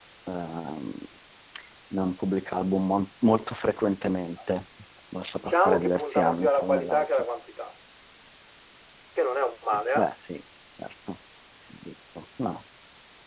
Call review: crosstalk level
present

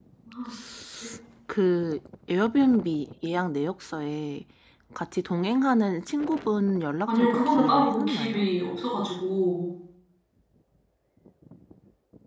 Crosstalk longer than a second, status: present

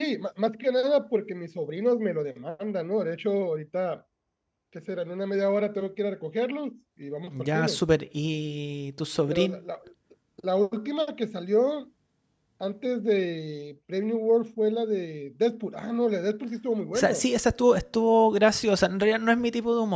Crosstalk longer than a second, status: none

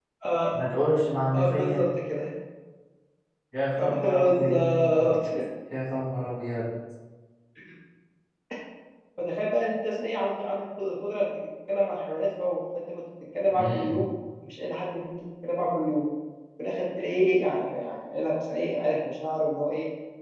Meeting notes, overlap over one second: present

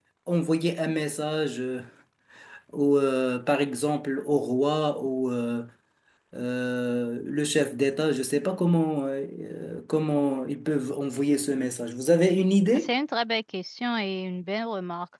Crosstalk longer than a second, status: none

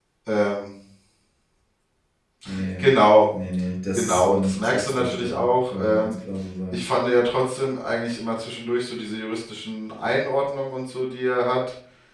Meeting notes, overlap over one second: present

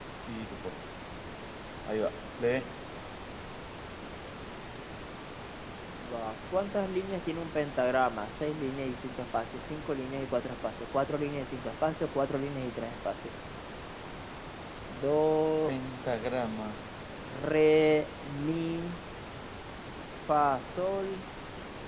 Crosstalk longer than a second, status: none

